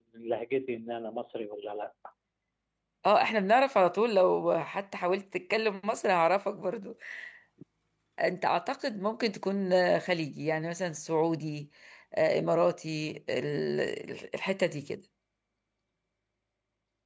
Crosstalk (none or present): none